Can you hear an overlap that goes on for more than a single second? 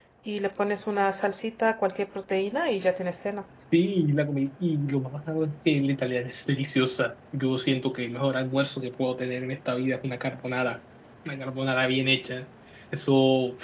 No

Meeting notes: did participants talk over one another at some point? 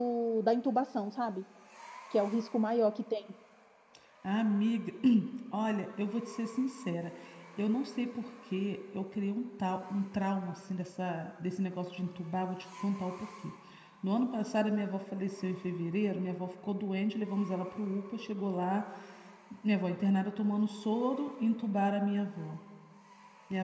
No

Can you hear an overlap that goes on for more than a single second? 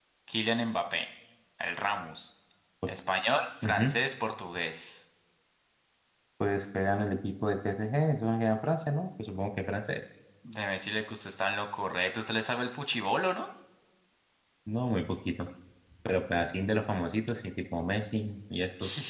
No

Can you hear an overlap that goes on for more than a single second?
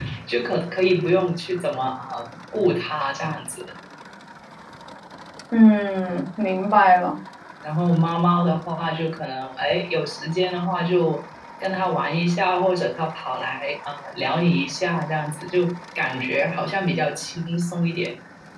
No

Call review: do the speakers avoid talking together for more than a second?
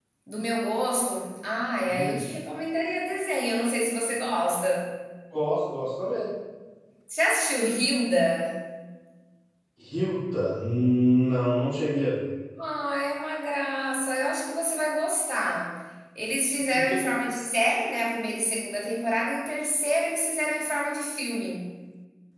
Yes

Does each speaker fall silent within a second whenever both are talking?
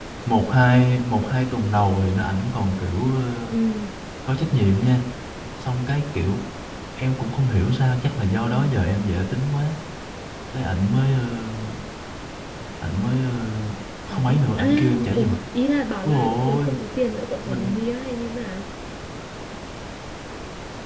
No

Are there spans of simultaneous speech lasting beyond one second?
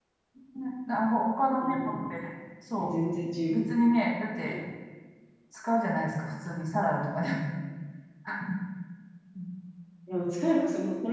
No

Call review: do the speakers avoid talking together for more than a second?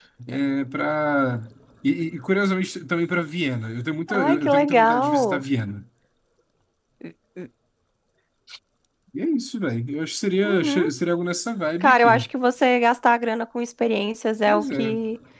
No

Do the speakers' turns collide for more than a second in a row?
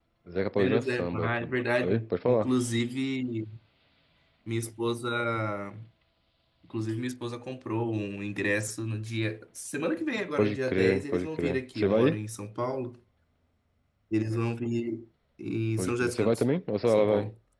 Yes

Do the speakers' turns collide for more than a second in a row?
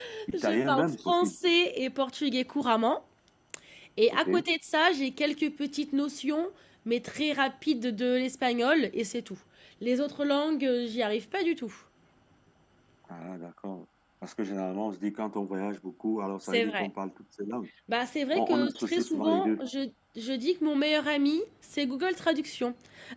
Yes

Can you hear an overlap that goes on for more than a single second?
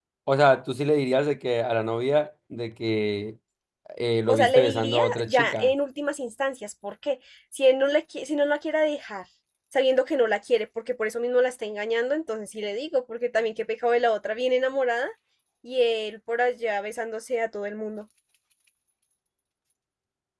Yes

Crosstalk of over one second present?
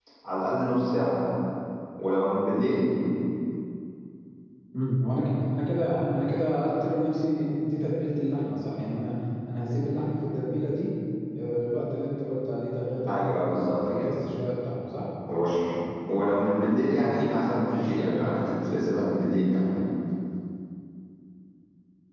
No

